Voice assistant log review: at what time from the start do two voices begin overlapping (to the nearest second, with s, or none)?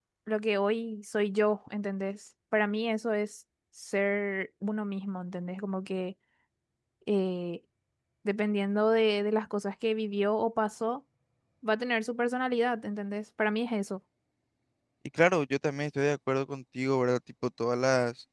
none